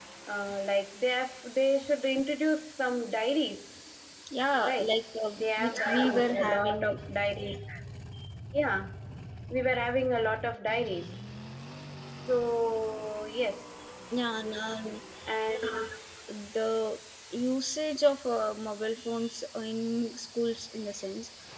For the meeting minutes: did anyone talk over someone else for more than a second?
Yes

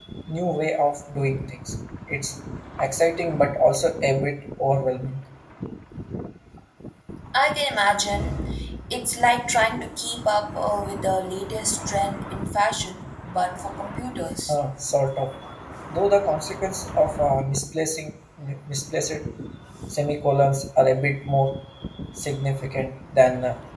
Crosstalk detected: No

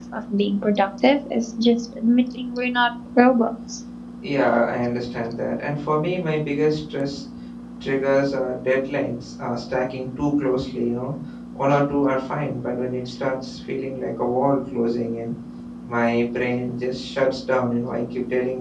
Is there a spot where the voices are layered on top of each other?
No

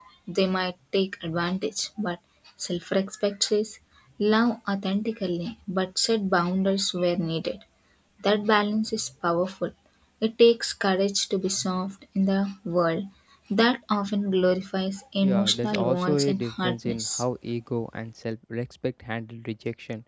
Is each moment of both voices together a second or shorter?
No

